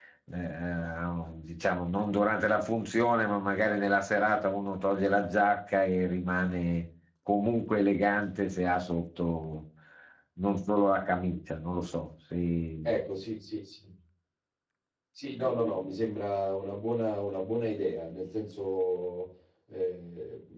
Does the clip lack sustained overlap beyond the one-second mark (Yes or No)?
Yes